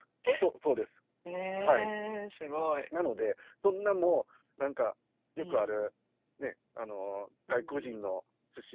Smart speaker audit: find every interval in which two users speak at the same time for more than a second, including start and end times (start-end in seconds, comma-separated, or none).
none